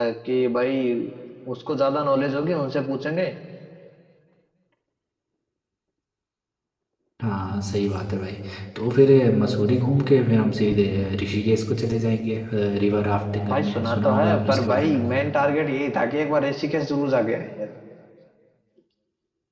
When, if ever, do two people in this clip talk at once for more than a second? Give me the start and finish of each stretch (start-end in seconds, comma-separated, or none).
13.5-15.0